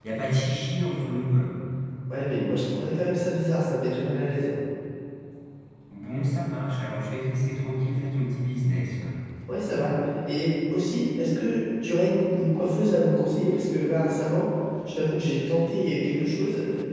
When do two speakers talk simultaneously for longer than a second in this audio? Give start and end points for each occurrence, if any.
none

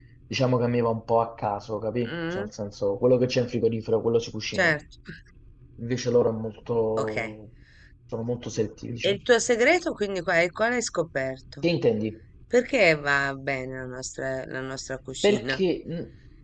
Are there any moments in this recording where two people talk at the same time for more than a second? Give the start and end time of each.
none

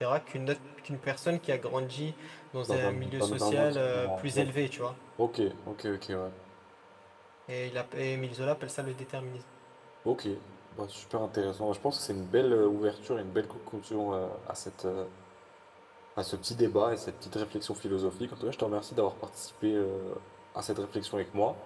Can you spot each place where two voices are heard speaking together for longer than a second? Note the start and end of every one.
2.7-4.5

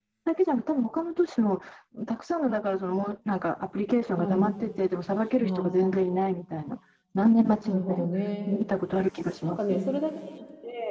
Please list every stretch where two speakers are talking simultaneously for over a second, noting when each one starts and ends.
none

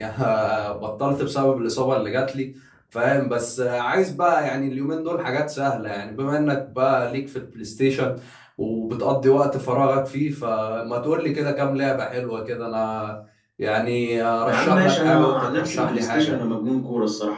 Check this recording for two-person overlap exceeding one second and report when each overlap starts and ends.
14.5-16.4

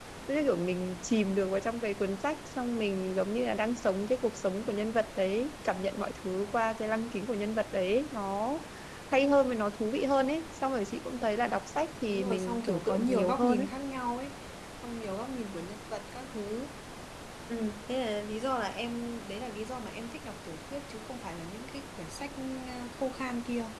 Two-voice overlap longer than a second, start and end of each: 12.1-13.7

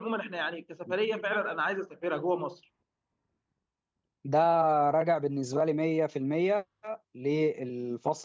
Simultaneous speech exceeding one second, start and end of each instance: none

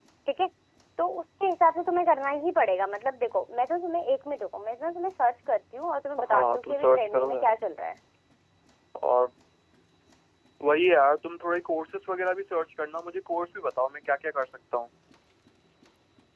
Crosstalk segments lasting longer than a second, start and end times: 6.3-7.5

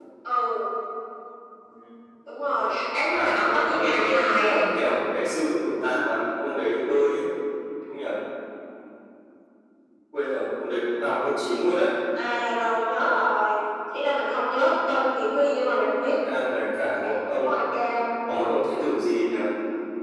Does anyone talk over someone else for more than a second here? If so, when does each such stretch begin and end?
3.1-4.6

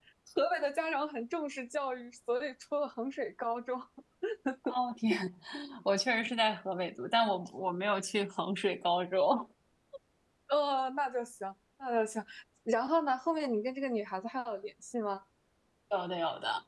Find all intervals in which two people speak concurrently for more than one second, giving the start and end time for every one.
none

